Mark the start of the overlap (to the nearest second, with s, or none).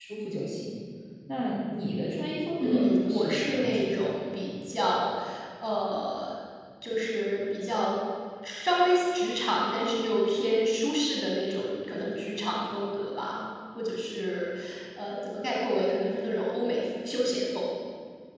3 s